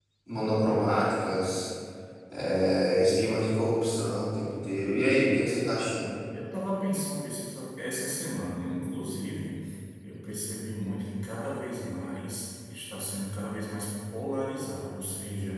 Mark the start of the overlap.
none

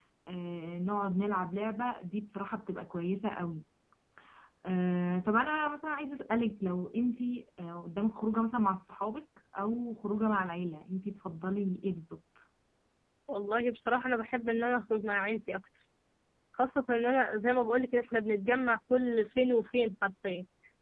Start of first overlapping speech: none

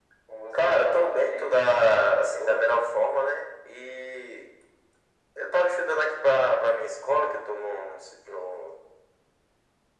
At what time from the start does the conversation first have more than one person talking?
1 s

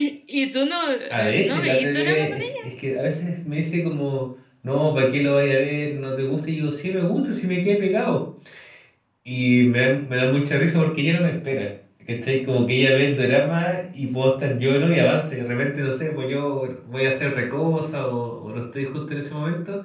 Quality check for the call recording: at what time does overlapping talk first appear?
1 s

